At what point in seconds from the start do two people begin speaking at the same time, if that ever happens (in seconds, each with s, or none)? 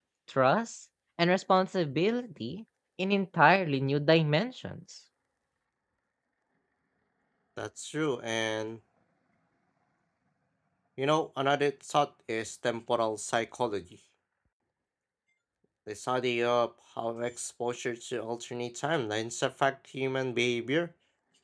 none